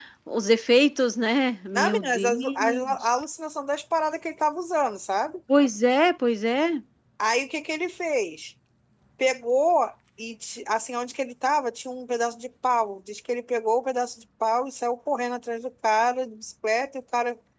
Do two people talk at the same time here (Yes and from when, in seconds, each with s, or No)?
Yes, from 1.7 s